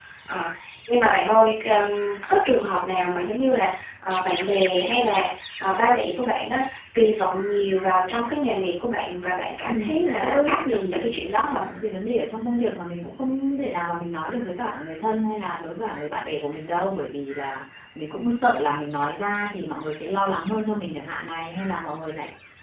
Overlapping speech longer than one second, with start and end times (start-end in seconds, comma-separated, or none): 9.6-11.6